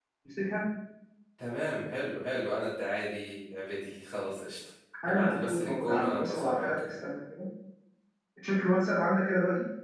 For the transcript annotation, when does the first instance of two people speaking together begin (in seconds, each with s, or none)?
5.1 s